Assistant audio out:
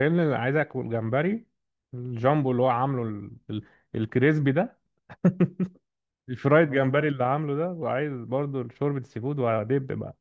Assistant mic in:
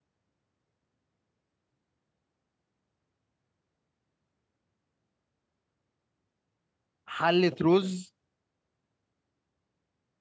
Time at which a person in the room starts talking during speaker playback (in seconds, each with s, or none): 7.0 s